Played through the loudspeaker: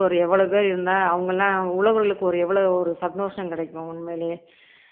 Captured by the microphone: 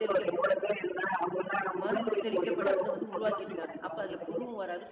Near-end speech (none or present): present